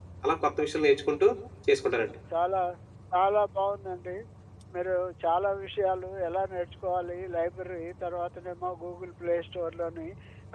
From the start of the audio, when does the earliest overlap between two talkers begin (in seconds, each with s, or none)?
none